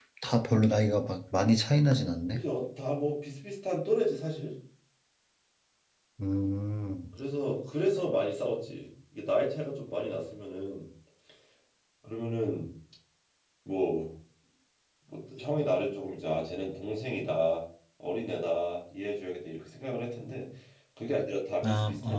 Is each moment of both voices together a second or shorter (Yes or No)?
Yes